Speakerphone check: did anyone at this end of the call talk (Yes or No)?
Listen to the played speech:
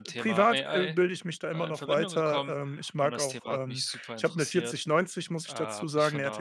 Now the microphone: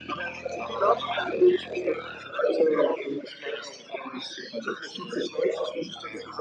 No